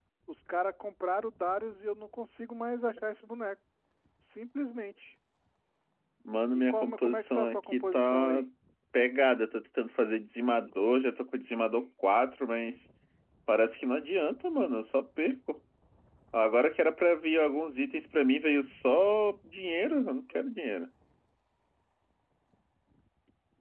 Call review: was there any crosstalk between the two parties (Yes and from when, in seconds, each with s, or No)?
Yes, from 6.5 s